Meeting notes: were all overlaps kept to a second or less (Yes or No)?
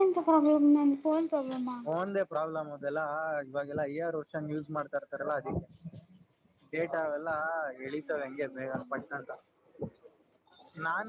Yes